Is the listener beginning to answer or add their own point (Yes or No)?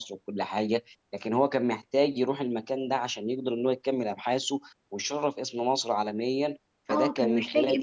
Yes